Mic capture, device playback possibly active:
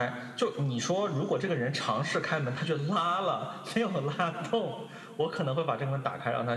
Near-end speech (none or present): none